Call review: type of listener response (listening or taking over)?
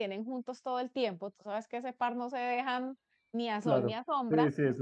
taking over